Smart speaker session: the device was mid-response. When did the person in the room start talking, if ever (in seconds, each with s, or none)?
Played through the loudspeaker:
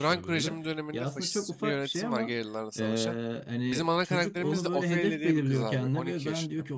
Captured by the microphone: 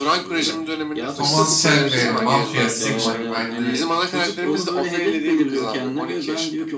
1.1 s